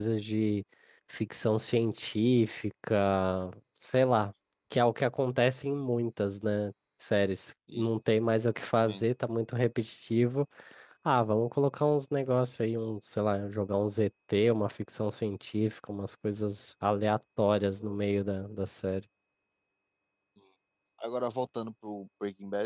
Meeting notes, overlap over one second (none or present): none